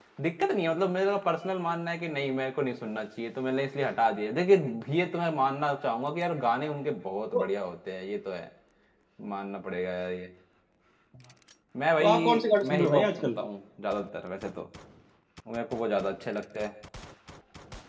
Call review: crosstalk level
present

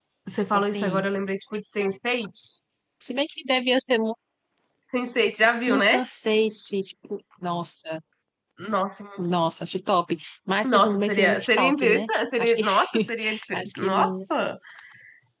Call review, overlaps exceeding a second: present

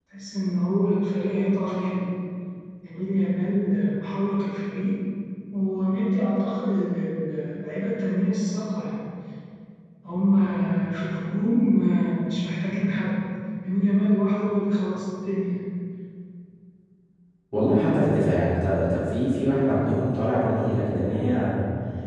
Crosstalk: none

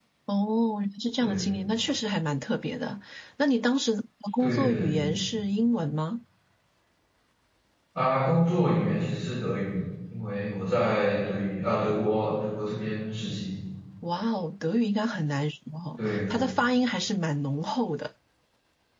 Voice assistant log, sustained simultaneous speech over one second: none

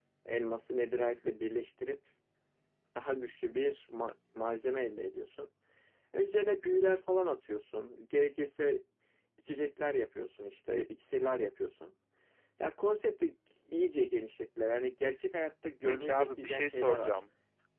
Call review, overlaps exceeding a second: present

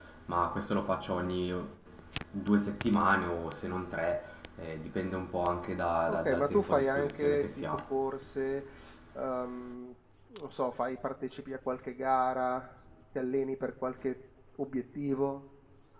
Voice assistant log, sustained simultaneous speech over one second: present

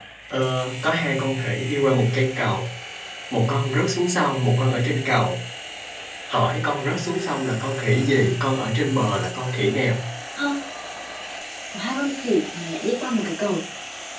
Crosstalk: none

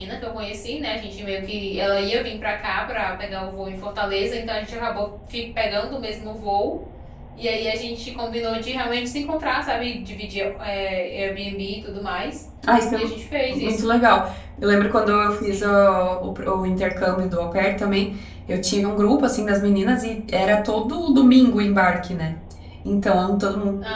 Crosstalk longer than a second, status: none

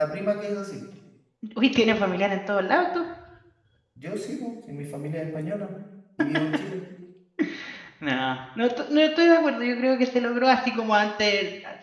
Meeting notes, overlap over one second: none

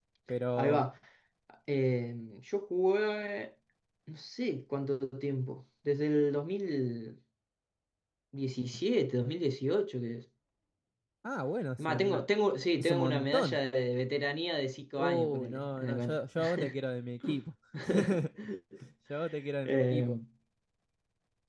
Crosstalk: present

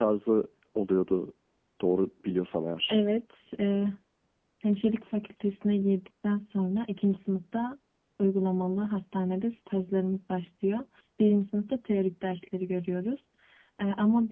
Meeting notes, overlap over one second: none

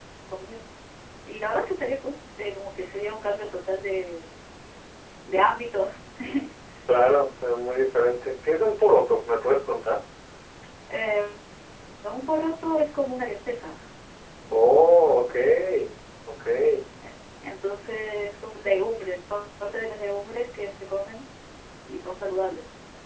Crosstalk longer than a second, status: none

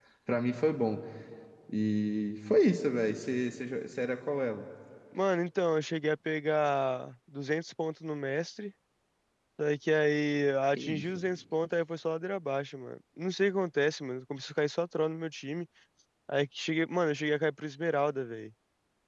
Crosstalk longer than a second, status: none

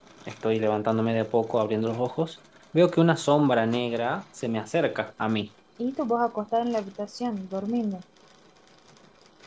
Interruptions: none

